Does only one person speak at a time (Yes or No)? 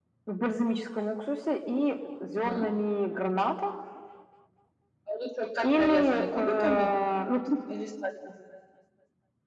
No